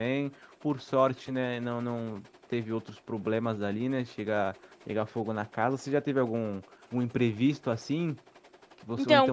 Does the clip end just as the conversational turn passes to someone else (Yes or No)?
Yes